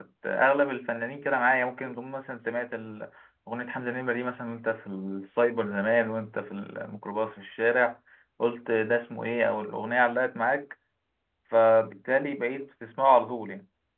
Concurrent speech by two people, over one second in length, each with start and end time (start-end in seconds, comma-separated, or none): none